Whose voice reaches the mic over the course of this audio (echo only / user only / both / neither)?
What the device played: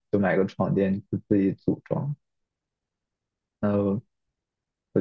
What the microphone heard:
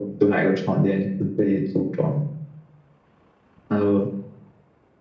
echo only